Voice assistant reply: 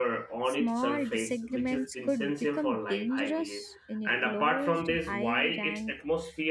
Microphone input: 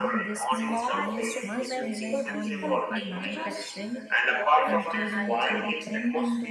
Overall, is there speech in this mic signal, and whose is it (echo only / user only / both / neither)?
both